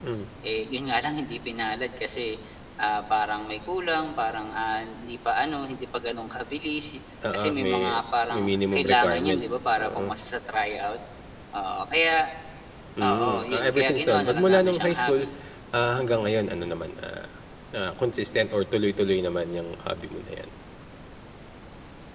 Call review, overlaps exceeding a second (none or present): present